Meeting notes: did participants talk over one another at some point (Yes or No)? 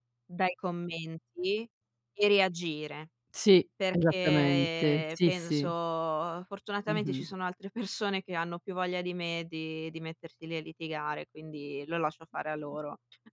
Yes